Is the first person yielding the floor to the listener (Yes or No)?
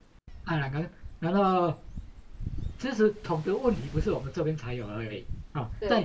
No